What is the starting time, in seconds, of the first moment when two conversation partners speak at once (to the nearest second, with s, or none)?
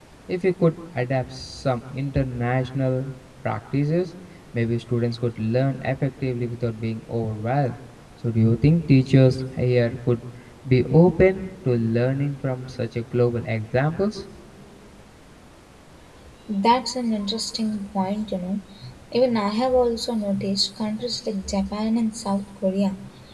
none